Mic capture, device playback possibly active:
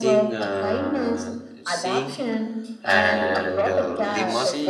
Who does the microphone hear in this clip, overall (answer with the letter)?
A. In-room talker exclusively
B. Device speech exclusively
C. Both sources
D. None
C